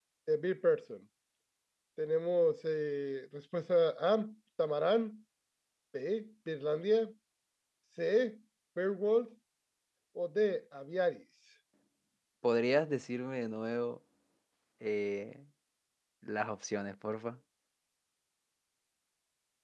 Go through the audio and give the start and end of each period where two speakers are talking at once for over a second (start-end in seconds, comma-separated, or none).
none